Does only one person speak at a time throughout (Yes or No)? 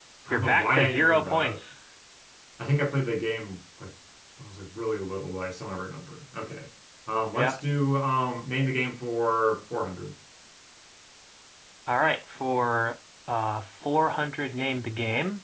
No